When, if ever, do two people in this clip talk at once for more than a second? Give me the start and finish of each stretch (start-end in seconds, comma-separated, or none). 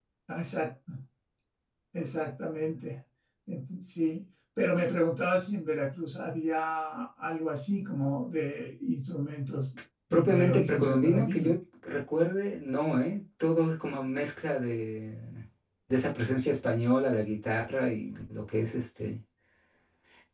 10.1-11.5